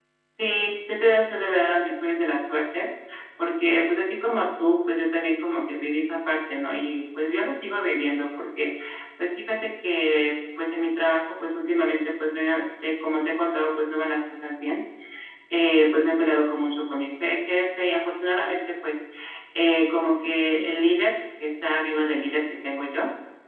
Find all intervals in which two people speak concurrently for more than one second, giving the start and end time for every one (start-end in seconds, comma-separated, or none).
none